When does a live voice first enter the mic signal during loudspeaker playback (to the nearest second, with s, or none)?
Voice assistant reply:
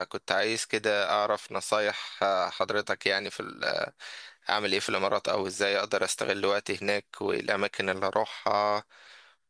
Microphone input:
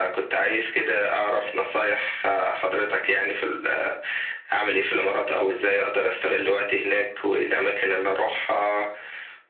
none